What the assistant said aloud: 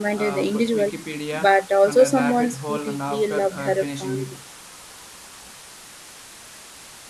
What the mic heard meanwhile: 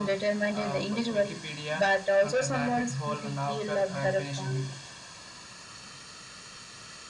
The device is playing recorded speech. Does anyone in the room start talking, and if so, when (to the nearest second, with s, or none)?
none